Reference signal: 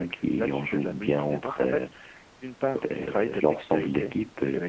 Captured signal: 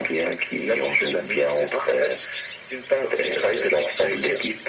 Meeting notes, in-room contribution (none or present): none